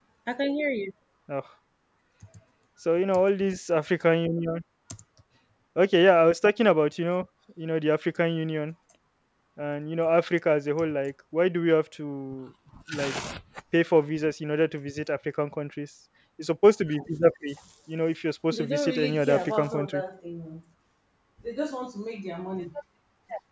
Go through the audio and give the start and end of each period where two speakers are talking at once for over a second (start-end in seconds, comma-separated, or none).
18.5-20.0